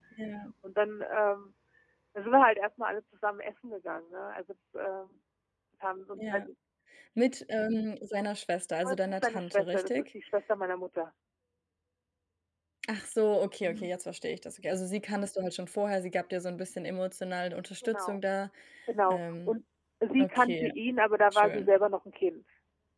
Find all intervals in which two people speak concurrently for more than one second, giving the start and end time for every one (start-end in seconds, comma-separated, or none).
8.8-10.0